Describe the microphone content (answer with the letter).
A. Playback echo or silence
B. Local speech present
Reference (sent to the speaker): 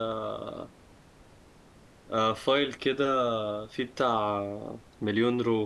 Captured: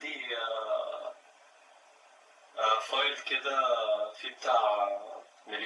A